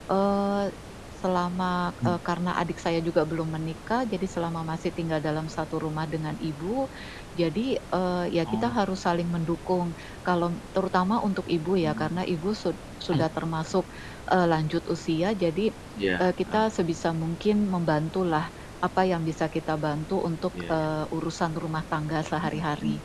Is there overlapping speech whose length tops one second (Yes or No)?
No